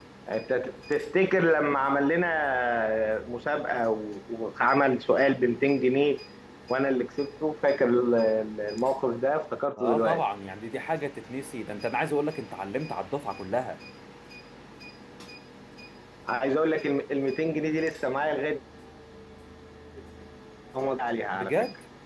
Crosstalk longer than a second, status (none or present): none